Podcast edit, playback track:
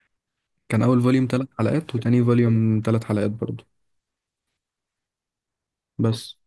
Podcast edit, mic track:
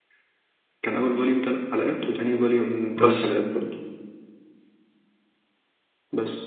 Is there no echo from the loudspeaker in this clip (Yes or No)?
No